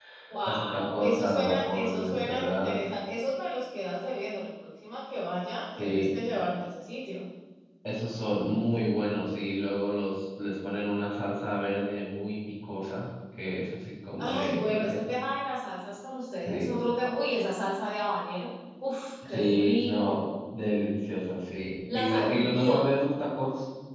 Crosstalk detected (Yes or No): Yes